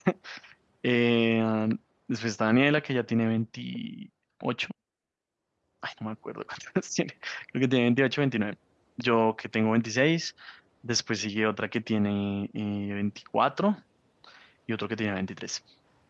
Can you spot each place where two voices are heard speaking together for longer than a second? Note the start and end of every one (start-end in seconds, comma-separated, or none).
none